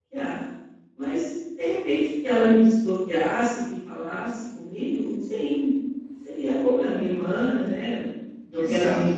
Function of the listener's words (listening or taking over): listening